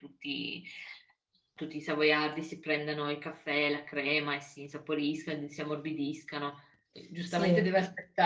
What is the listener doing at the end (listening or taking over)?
listening